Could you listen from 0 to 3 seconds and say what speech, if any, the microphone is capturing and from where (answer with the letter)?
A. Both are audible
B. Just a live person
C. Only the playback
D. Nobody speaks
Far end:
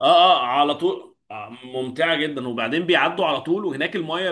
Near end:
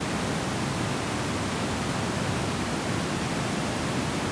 D